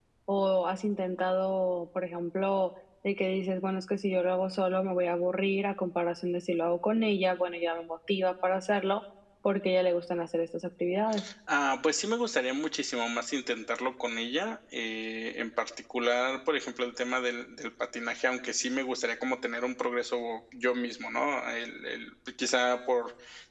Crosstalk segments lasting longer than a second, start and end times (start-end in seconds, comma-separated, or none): none